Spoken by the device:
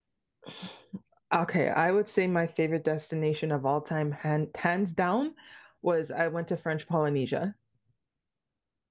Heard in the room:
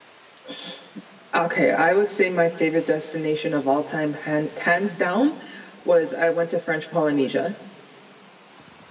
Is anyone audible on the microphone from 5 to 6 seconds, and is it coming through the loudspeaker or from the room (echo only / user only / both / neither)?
echo only